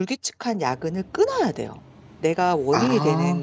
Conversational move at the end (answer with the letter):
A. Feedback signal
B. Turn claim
A